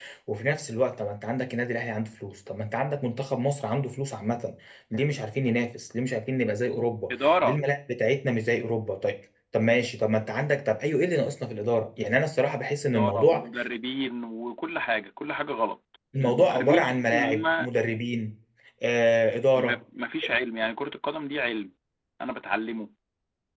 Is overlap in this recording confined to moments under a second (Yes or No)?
No